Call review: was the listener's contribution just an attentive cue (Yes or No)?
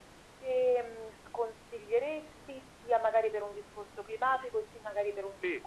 Yes